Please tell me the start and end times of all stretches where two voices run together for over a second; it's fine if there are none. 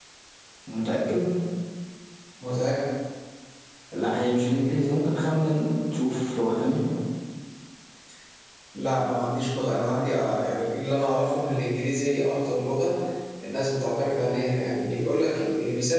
none

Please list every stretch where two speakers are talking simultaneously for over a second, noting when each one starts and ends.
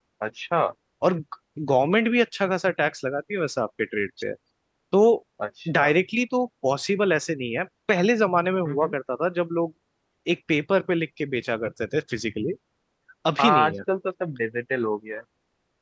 none

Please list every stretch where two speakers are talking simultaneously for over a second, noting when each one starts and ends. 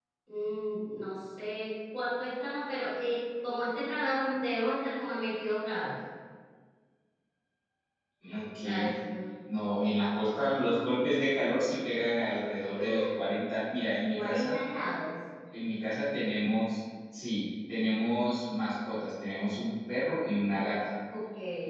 none

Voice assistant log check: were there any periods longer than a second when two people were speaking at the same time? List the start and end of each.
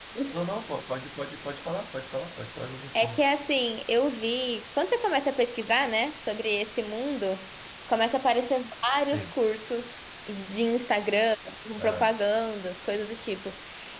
none

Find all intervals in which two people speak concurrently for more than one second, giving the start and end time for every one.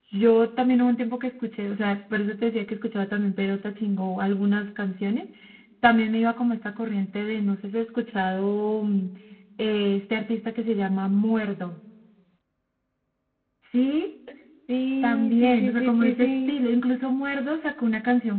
15.0-16.5

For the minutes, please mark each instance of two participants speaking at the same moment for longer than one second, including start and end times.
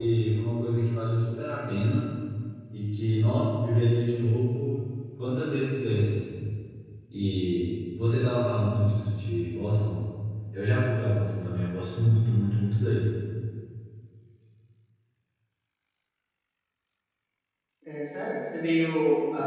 none

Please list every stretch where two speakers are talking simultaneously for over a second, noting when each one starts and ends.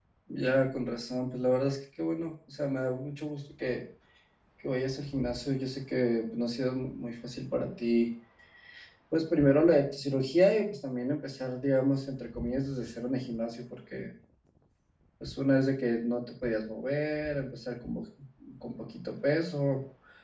none

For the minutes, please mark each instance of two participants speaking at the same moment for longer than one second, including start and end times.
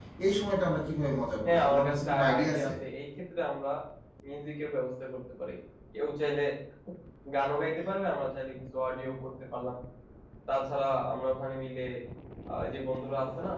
1.4-2.7

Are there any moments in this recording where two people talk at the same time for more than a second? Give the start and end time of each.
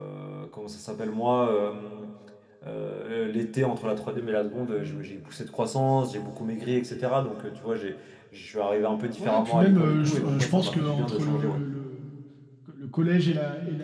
9.2-11.6

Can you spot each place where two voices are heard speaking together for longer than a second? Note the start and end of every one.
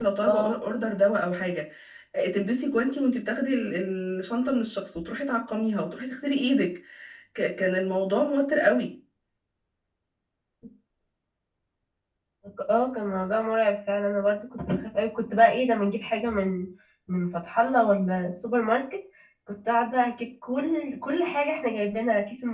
none

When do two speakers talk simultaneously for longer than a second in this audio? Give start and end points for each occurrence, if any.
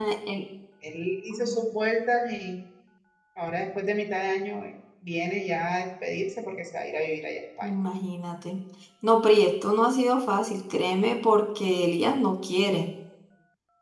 none

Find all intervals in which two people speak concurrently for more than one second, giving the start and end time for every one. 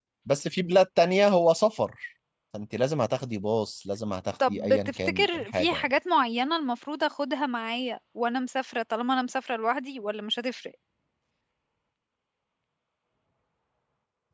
4.5-5.8

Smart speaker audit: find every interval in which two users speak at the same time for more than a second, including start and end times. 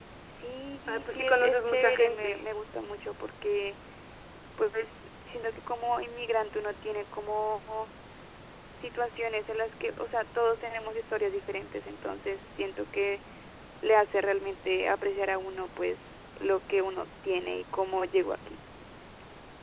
0.9-2.5

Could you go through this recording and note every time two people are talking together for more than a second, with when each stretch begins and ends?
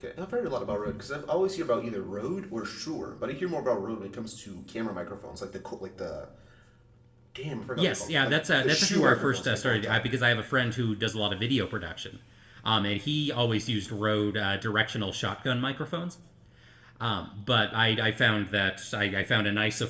7.8-10.0

